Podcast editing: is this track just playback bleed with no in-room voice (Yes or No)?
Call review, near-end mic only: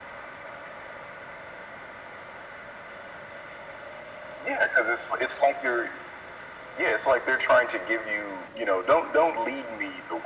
Yes